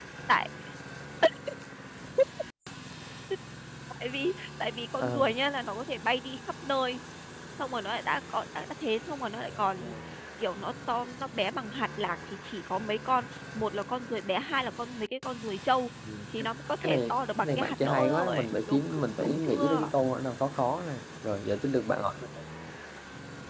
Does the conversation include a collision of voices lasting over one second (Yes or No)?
Yes